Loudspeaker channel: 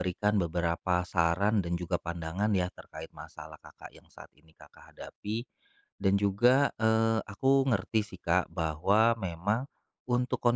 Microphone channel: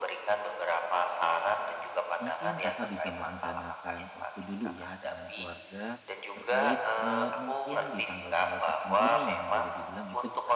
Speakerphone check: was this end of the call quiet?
No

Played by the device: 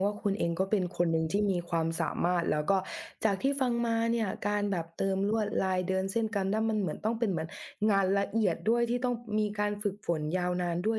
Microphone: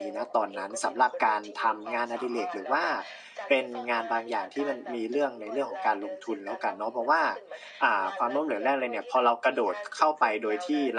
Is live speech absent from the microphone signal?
No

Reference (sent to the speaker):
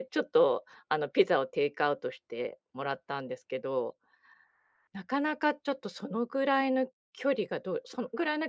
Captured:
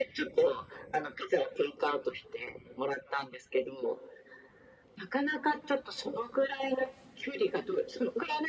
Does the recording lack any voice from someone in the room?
Yes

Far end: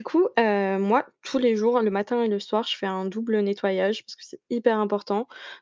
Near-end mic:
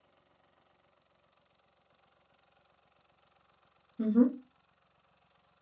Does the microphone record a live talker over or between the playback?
Yes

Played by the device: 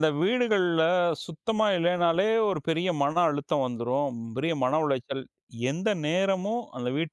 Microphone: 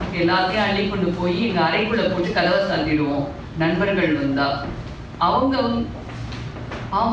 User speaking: Yes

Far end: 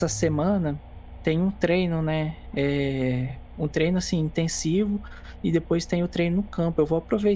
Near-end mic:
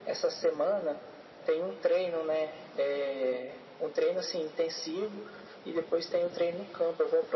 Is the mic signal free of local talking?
Yes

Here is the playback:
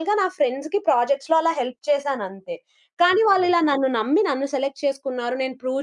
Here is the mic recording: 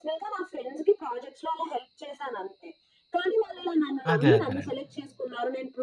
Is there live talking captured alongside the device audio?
Yes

